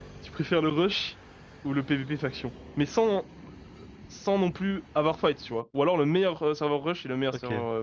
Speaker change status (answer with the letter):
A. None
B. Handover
B